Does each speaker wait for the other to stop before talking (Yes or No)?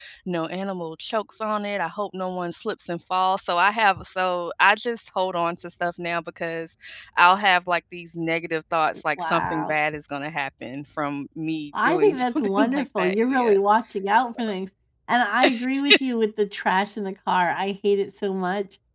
No